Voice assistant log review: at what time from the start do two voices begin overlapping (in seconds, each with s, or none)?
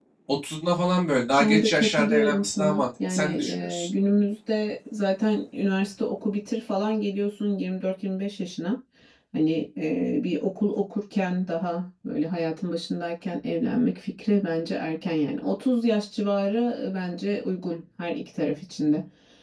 1.4 s